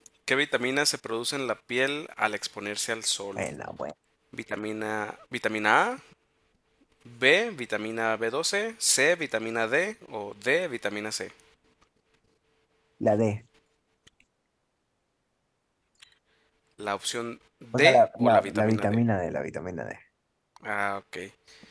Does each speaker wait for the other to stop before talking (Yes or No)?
No